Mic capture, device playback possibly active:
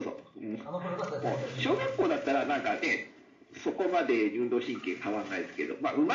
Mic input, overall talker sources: both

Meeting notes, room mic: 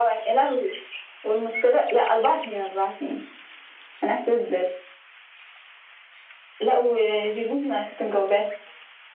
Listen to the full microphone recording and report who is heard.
echo only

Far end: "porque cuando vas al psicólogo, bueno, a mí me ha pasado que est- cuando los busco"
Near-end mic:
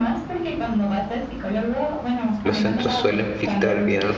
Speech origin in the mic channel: both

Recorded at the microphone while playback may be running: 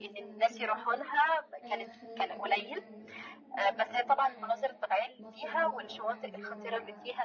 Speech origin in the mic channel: both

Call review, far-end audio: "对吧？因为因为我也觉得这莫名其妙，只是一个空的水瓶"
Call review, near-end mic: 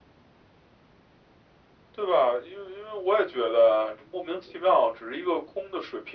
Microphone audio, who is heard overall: echo only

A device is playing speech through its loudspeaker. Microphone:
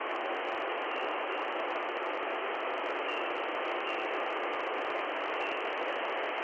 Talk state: neither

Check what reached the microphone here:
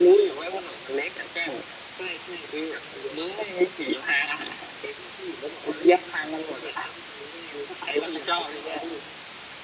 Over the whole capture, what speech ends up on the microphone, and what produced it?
echo only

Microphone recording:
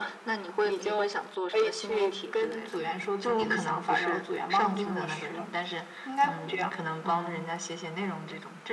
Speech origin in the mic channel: echo only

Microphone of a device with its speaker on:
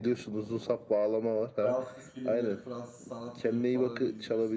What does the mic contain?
both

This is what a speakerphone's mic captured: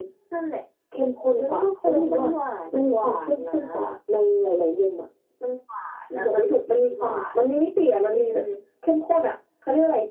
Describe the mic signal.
echo only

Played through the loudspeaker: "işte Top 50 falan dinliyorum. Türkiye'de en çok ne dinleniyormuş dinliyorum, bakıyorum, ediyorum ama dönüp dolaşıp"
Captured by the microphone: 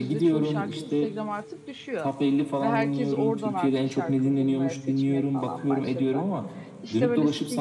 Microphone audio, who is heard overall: both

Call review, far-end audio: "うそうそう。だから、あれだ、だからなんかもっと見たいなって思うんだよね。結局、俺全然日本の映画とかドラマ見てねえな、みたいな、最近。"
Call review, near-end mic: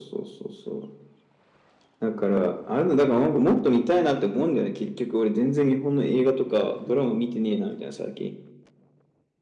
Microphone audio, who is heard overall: echo only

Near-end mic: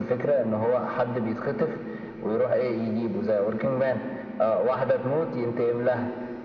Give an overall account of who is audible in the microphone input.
echo only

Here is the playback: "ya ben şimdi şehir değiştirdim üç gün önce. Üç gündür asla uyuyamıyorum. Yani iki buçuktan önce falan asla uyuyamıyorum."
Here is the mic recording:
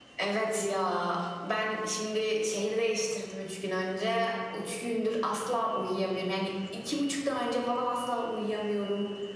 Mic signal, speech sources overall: echo only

